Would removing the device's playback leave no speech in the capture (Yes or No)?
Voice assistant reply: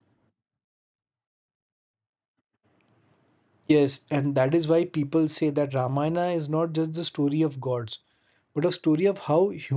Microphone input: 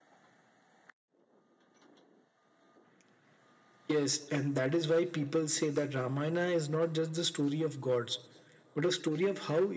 Yes